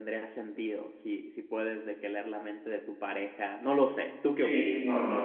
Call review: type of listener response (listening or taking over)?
taking over